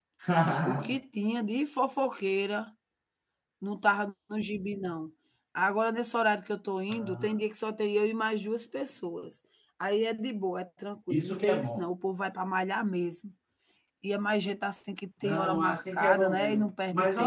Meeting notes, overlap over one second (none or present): present